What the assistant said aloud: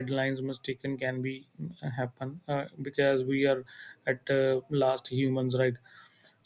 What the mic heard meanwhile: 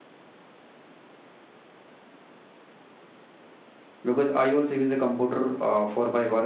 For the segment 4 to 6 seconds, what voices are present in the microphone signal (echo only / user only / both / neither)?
user only